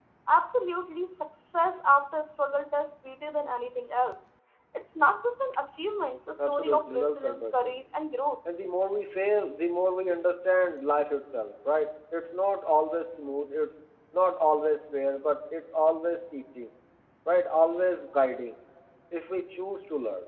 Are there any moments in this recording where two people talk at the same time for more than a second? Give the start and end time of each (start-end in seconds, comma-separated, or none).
6.5-7.8